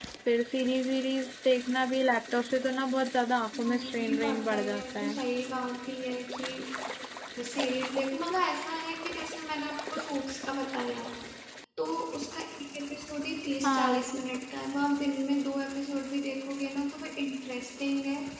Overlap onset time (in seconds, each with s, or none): 3.6 s